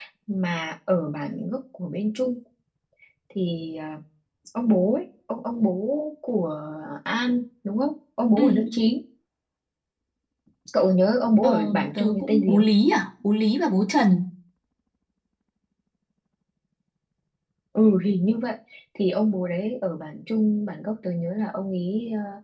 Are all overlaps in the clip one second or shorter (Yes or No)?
No